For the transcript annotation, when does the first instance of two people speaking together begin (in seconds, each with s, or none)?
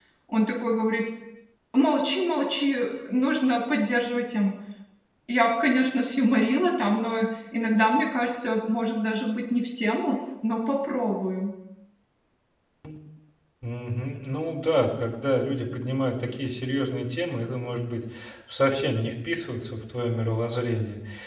none